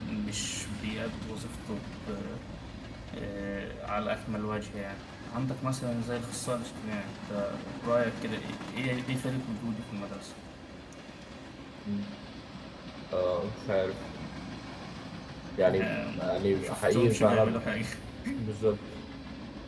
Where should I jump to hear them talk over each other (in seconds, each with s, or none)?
15.7 s